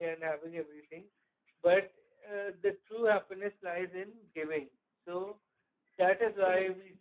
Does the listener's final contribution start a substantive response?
No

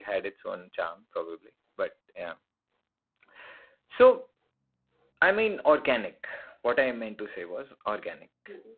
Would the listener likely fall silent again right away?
Yes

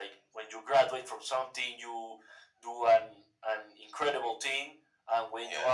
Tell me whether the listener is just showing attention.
Yes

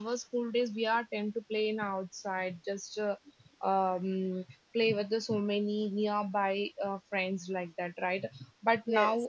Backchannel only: Yes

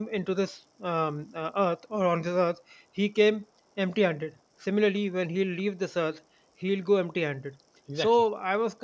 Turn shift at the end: No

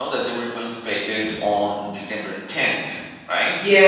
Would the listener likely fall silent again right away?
No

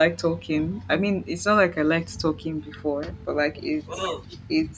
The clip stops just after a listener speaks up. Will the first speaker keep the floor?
Yes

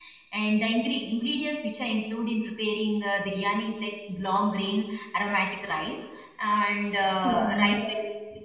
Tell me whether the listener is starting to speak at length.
No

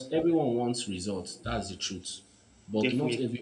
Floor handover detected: No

